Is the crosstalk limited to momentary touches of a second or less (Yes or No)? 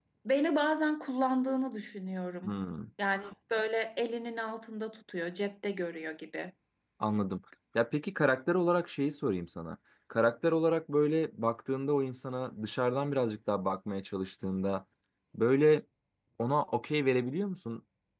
Yes